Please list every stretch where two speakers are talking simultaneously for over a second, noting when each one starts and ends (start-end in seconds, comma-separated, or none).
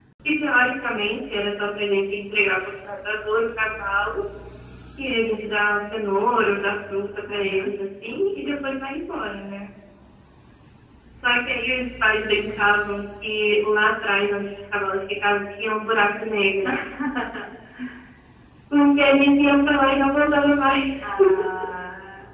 none